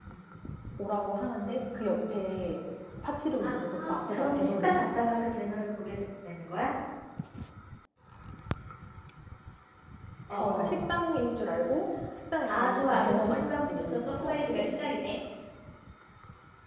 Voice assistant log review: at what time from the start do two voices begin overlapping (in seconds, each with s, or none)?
3.4 s